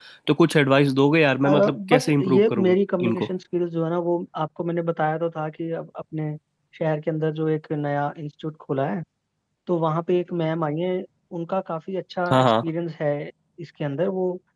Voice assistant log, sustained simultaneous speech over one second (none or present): present